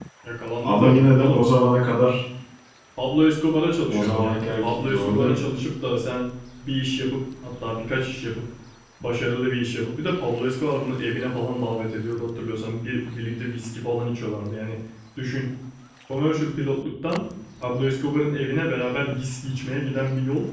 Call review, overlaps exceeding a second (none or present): present